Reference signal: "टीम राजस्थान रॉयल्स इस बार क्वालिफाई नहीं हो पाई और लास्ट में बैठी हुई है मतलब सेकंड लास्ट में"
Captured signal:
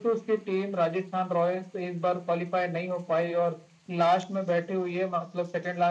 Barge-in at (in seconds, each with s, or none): none